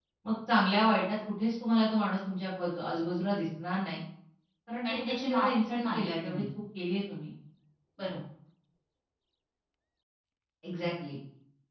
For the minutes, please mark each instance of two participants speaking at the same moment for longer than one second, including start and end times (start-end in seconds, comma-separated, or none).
4.8-6.4